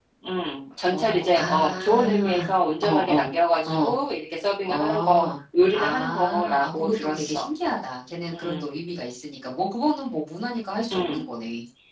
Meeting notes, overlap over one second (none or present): present